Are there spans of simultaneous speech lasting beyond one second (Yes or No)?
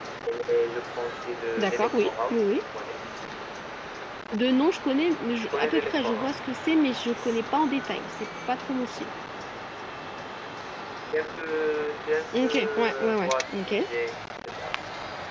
Yes